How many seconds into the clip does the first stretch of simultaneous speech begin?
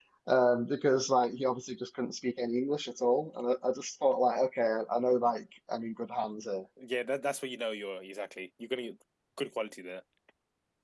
none

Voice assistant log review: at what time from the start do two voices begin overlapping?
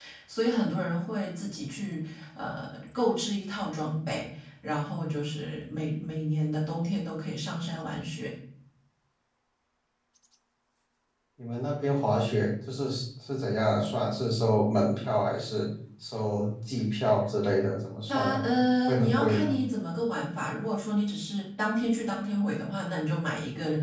18.1 s

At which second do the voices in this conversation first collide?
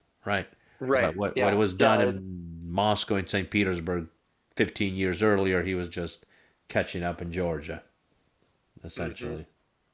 0.9 s

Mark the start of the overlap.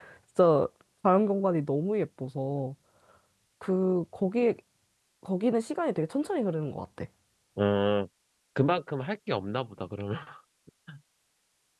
none

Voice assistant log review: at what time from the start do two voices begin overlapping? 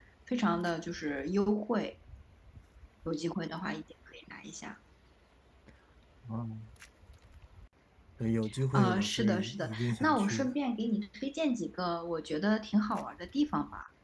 8.7 s

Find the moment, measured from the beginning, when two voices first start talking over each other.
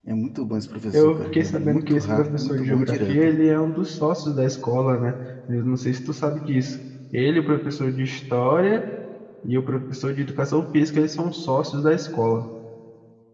0.9 s

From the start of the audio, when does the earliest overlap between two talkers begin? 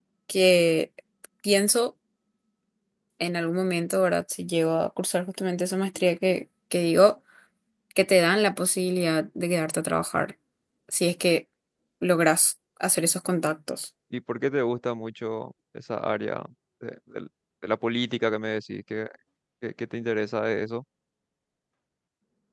none

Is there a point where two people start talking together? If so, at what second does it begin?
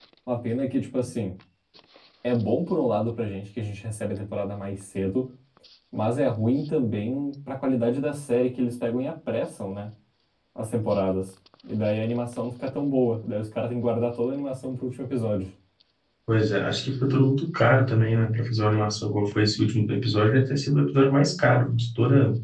none

